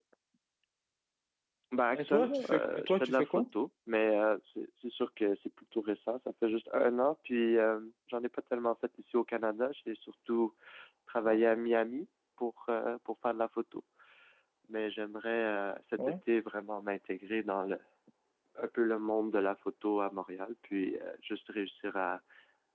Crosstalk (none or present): present